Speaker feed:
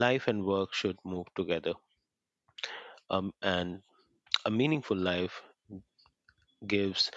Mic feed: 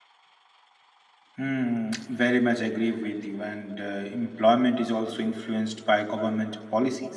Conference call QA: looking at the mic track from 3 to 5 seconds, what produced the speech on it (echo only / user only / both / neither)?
user only